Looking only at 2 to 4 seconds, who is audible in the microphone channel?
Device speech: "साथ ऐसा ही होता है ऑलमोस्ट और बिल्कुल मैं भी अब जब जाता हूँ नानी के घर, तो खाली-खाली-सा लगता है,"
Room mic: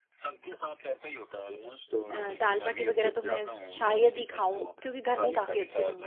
both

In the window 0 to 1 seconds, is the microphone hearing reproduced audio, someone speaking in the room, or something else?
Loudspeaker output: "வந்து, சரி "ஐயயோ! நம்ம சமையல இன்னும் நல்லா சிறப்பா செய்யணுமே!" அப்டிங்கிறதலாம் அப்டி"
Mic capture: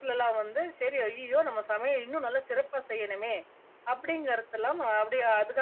echo only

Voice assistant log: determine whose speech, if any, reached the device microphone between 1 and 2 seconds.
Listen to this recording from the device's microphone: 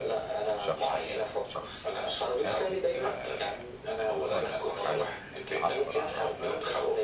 both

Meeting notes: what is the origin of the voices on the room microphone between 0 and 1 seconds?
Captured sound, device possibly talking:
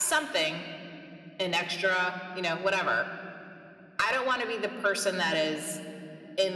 echo only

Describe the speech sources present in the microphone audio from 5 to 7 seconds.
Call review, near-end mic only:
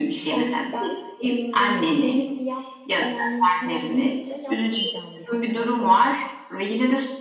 both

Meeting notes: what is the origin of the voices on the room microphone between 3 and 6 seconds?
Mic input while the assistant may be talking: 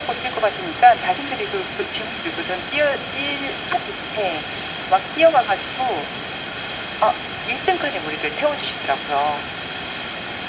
echo only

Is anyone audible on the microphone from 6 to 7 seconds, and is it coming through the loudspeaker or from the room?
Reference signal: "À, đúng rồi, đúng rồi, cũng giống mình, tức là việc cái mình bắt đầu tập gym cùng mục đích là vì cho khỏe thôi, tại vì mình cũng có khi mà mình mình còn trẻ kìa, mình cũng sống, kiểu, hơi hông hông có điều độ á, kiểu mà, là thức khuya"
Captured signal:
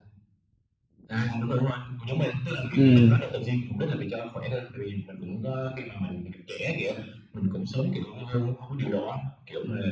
echo only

